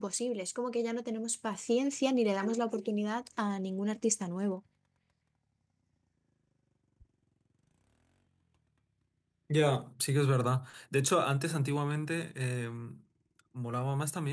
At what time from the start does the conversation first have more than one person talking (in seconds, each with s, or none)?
none